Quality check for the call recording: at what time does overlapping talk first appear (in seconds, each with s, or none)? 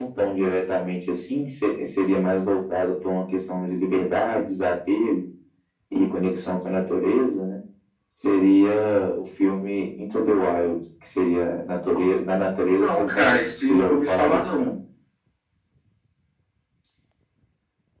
12.8 s